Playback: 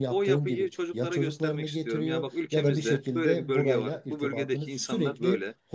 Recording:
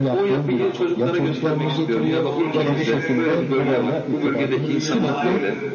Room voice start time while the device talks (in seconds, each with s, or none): 0.5 s